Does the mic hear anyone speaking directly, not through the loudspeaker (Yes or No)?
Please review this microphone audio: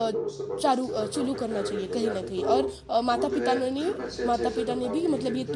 Yes